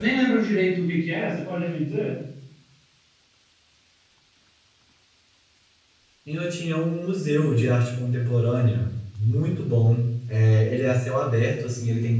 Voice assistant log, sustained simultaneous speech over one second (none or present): none